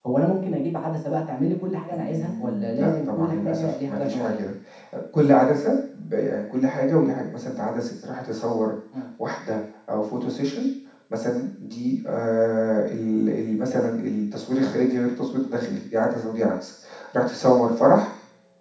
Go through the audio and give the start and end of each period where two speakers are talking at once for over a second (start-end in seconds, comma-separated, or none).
1.9-4.5